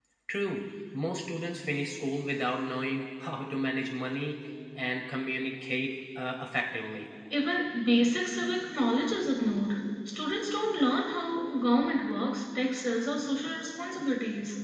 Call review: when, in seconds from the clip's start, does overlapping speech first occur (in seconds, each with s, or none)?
none